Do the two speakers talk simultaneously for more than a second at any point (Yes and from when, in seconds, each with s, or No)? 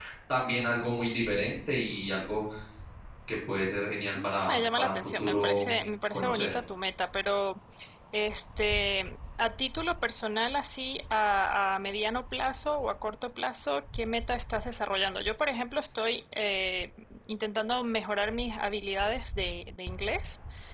Yes, from 4.5 s